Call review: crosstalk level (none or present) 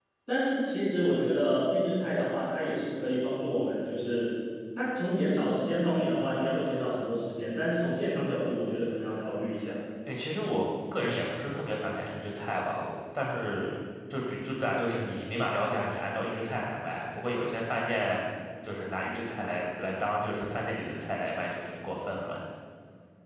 none